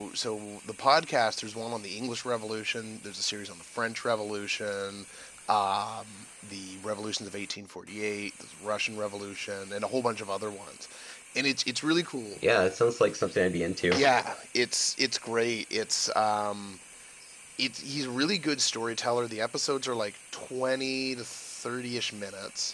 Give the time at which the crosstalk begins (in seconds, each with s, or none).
none